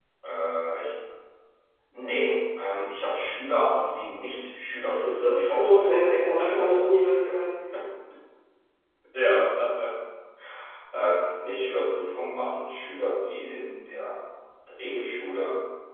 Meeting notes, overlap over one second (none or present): present